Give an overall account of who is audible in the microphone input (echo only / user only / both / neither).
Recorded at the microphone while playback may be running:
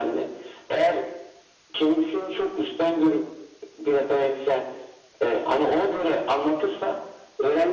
echo only